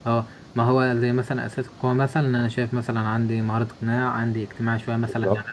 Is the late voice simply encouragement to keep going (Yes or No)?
Yes